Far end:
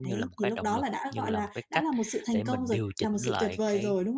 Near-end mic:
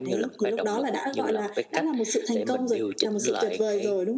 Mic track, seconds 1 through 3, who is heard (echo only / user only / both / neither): echo only